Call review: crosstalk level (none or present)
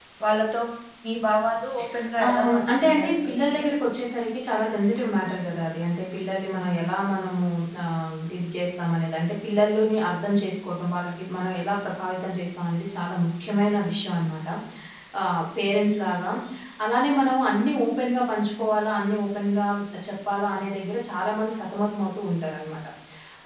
present